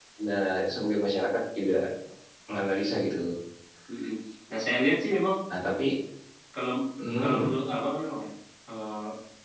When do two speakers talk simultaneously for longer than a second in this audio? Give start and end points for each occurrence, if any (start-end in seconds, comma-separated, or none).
none